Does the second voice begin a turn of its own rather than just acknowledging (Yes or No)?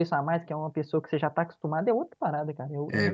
Yes